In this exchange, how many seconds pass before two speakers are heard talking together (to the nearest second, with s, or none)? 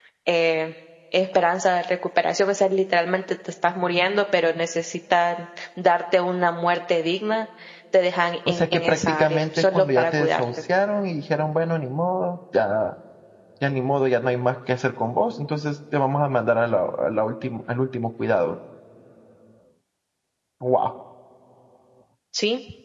8 s